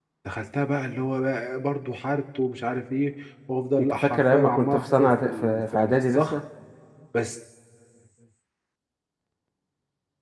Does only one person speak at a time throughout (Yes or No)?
No